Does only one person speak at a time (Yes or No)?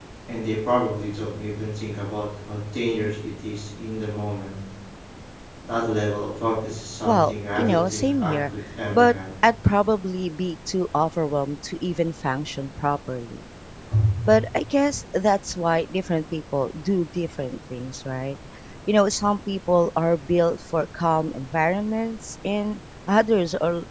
No